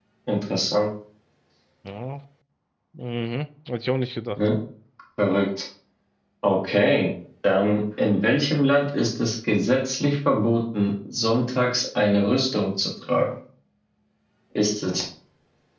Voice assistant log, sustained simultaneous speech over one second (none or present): none